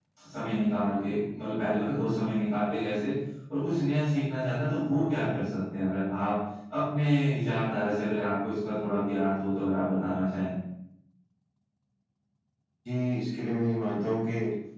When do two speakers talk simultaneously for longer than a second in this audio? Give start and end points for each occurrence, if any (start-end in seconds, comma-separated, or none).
none